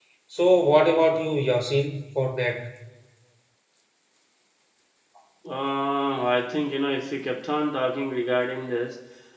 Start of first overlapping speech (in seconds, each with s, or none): none